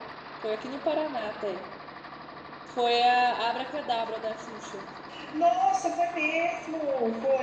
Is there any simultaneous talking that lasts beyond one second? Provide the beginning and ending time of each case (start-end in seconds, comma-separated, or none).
none